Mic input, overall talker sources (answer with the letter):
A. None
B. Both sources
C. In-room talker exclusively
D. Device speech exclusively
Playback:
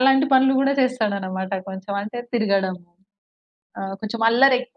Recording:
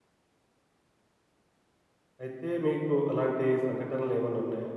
C